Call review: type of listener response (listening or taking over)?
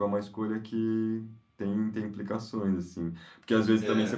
listening